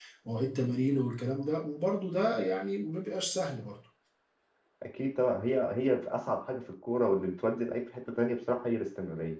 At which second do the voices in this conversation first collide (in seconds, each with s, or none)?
none